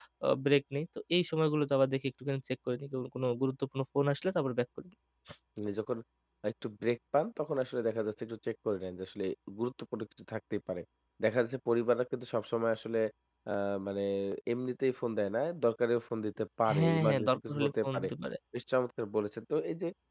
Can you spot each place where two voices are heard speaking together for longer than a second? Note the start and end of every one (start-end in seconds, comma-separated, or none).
16.7-18.1